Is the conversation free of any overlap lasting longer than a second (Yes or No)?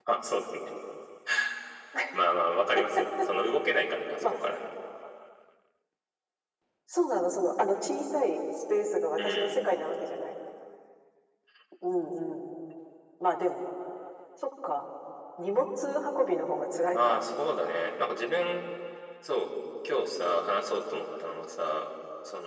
Yes